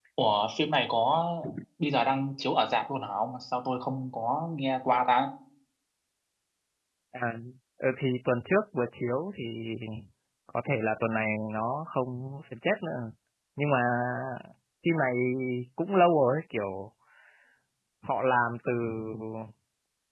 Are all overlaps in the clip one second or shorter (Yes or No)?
Yes